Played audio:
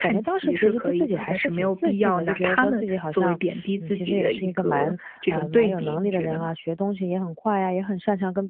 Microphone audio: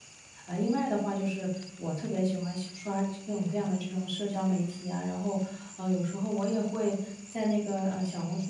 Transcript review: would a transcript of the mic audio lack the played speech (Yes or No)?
Yes